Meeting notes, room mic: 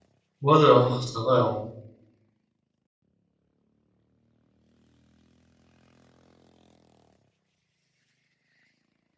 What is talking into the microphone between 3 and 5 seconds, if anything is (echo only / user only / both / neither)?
neither